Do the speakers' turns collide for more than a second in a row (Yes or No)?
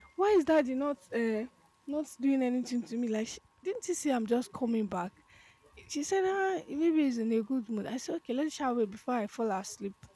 No